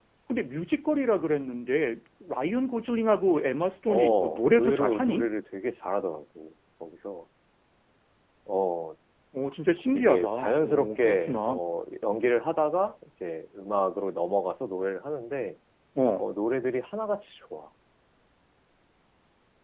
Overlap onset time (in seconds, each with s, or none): 3.9 s